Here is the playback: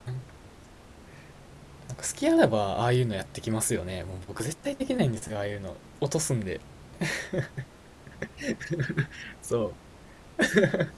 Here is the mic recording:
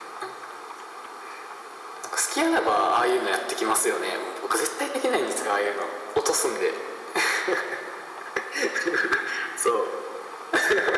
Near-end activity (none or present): none